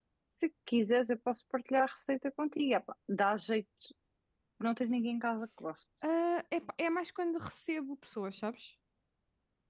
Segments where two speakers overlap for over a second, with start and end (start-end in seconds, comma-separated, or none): none